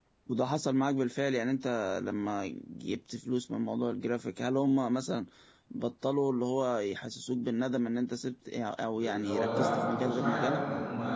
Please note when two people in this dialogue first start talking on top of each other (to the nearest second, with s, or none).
9 s